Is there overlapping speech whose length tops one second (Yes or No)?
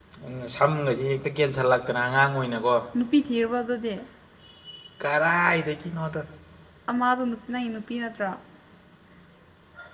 No